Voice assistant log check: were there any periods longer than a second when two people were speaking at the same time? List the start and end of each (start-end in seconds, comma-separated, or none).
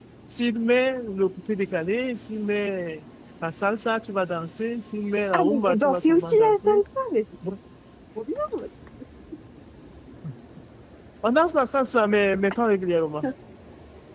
5.3-6.8